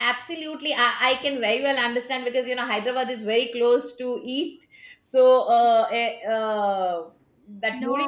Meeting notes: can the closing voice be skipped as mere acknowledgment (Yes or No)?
Yes